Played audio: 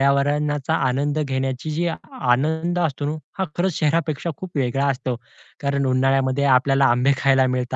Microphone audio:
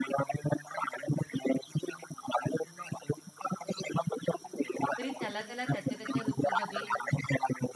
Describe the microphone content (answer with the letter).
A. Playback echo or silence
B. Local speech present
B